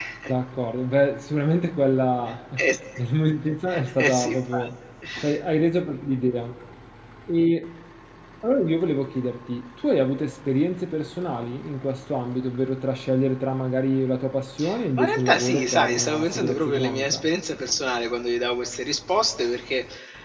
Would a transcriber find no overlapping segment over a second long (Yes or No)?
No